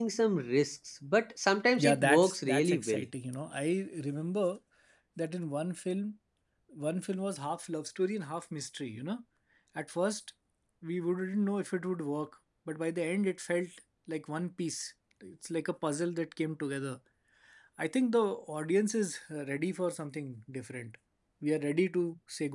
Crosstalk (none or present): present